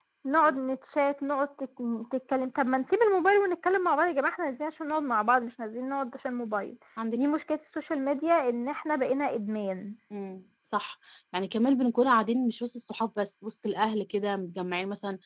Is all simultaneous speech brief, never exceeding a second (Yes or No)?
Yes